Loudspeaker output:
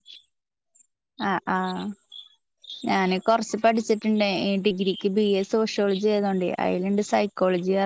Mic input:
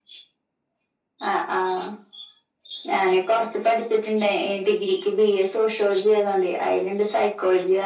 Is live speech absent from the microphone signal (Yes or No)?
Yes